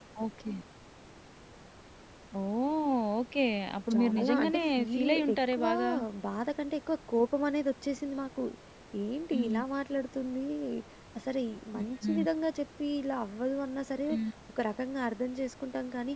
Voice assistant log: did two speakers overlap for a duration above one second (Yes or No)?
Yes